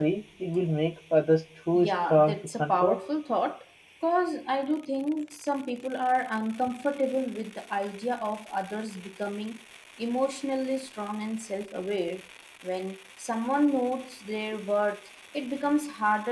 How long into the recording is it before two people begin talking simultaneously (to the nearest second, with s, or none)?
2 s